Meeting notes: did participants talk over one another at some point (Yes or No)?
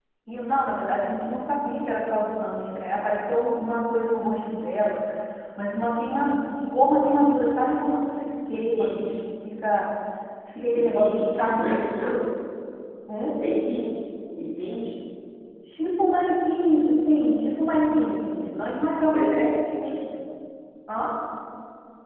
Yes